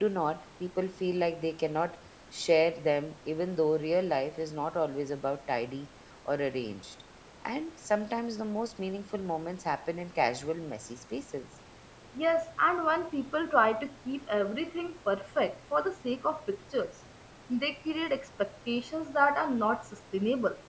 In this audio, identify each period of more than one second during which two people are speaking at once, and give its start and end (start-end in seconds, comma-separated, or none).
none